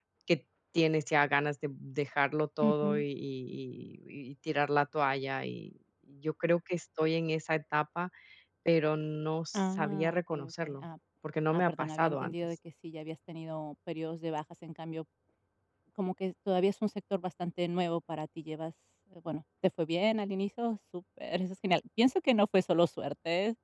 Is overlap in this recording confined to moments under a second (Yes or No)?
No